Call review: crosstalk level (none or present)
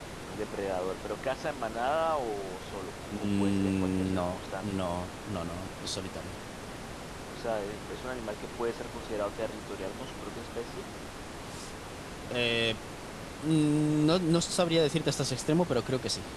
present